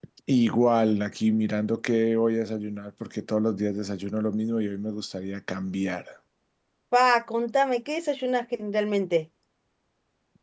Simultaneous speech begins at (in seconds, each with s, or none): none